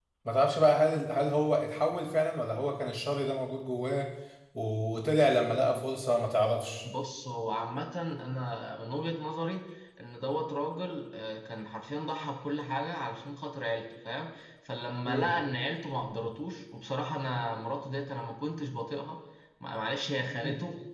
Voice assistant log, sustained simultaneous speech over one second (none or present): none